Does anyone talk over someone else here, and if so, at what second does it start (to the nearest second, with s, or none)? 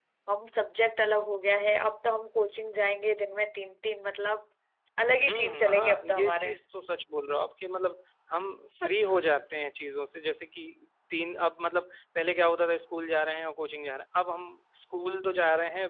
5 s